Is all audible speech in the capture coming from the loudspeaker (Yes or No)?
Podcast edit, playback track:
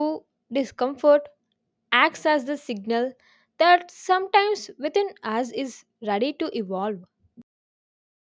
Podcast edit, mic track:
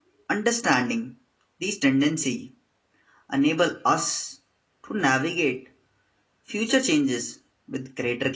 No